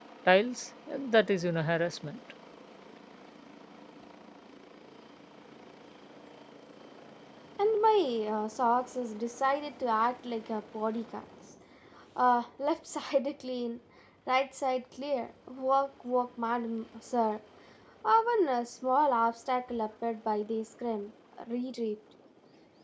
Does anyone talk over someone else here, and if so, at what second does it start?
none

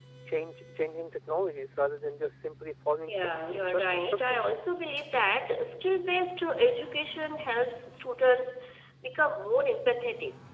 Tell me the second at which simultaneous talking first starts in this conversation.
3 s

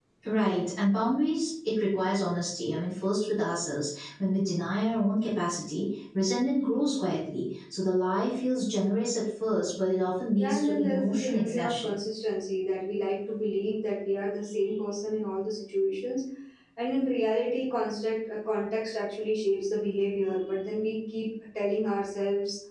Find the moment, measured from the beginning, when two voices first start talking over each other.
10 s

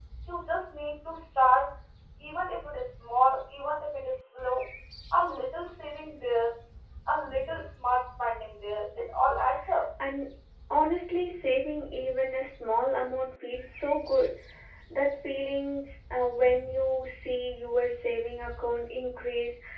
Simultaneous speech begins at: none

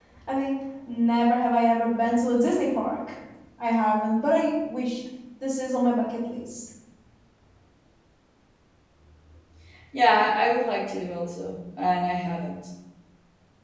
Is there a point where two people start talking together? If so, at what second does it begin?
none

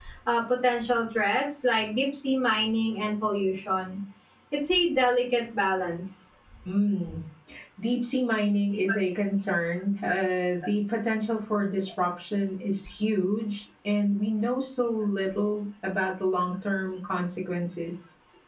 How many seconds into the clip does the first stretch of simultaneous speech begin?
none

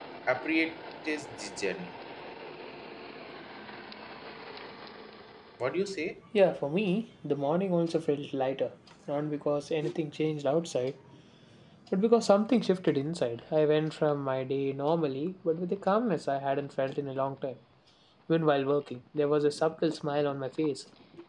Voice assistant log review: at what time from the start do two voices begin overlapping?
none

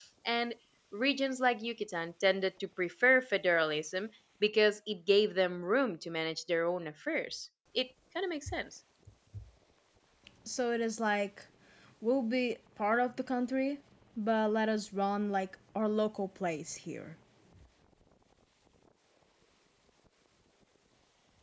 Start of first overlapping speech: none

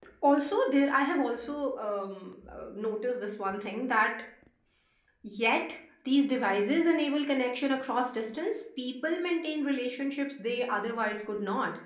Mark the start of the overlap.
none

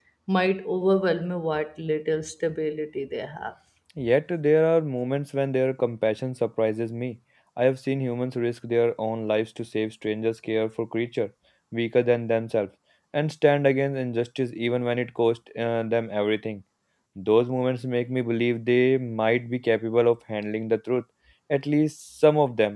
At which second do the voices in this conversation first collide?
none

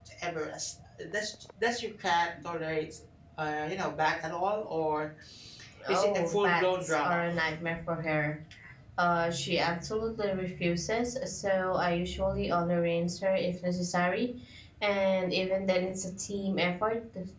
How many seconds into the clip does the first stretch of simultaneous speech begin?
6 s

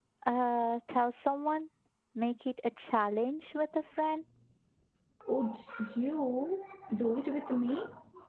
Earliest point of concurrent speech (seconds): none

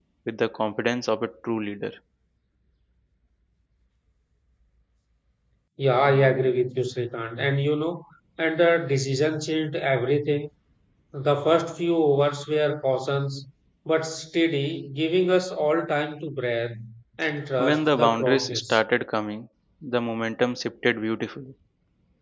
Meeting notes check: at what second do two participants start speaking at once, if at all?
18 s

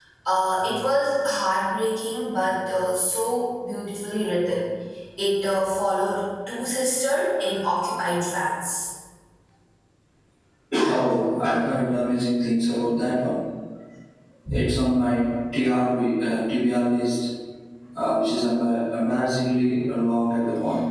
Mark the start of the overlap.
none

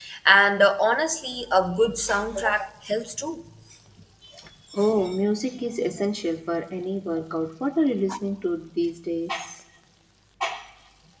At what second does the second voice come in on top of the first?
none

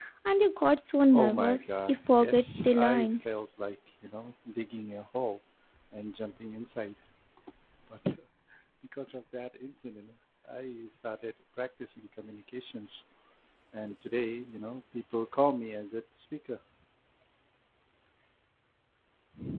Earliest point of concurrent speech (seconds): 1 s

